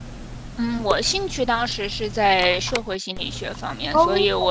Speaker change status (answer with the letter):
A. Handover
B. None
B